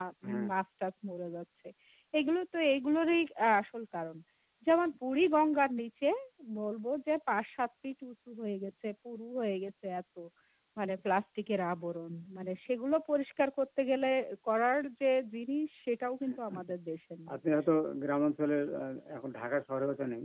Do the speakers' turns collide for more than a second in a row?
No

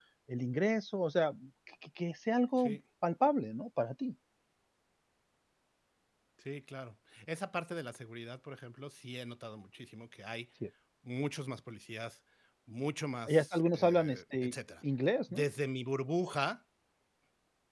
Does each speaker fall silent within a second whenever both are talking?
No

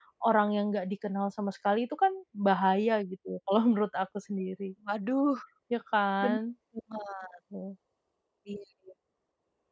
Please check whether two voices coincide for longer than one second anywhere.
No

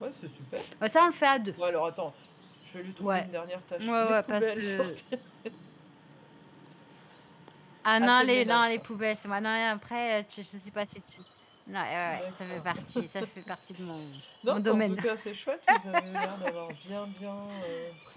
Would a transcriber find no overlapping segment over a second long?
No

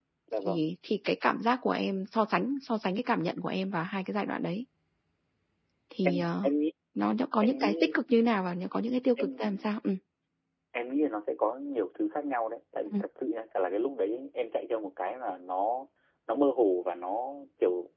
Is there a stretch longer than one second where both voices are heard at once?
No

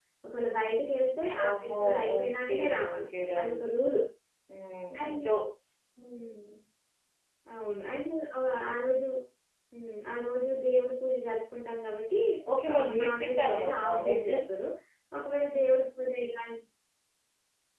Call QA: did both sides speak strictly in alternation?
No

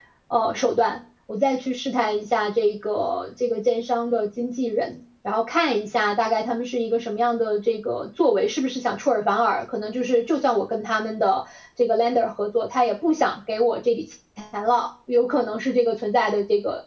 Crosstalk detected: No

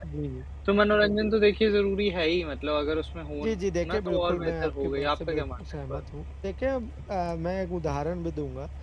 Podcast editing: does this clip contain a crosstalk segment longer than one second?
Yes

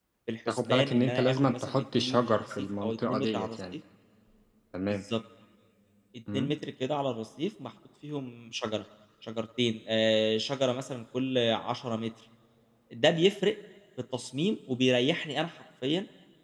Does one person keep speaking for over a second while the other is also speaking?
Yes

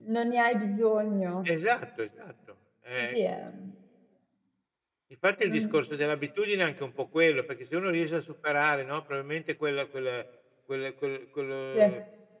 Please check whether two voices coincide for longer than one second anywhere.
No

